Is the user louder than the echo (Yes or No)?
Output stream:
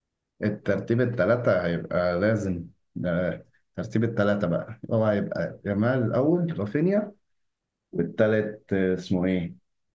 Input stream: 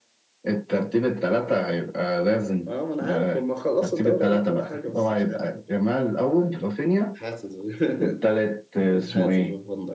No